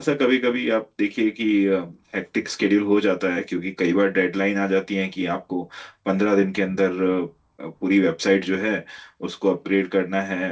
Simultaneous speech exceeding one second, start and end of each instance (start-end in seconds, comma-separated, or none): none